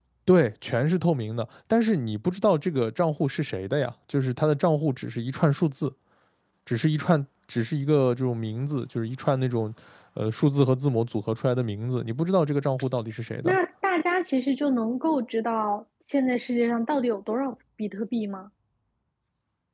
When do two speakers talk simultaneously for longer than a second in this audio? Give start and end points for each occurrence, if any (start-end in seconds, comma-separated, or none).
none